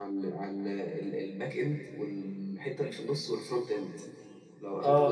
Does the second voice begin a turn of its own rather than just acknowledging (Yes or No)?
No